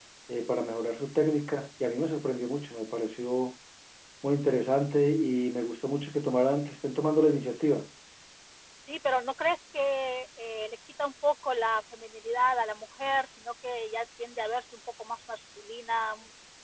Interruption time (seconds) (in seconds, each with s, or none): none